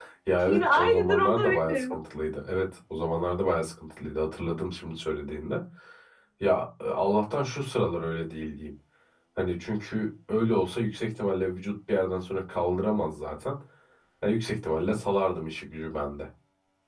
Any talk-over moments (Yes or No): Yes